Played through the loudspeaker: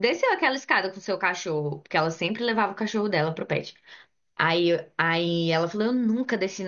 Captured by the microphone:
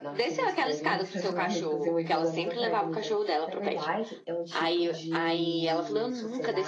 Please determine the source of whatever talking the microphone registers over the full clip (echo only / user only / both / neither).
both